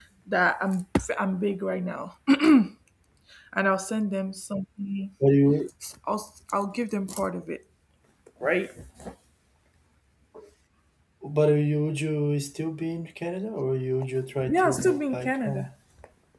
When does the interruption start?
14.4 s

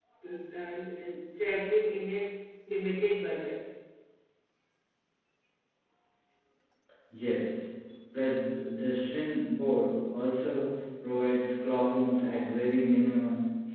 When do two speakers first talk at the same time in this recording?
none

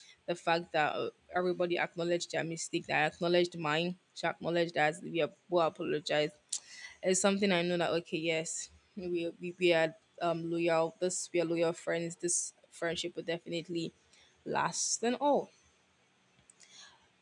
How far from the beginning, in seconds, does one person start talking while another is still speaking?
none

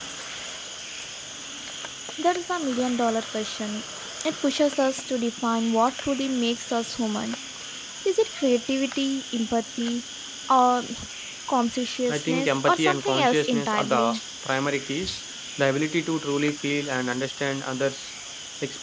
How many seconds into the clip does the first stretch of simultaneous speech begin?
12.1 s

